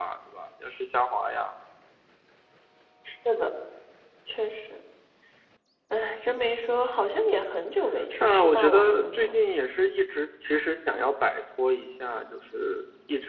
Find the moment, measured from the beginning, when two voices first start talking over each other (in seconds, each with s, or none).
8.1 s